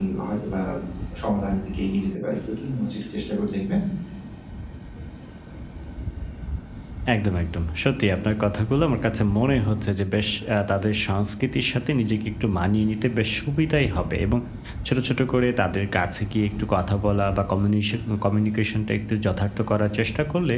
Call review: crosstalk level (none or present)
none